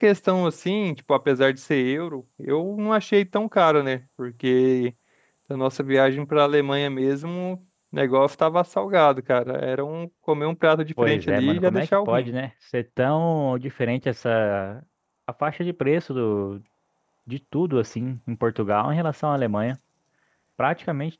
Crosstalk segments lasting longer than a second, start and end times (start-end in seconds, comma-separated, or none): 11.0-12.3